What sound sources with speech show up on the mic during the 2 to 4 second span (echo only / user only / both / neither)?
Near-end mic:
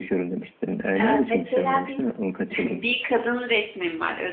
both